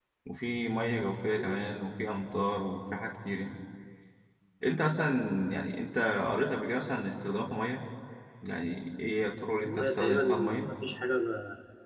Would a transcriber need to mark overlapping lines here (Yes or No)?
Yes